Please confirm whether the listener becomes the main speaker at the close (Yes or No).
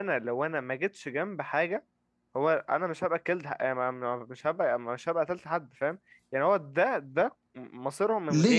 Yes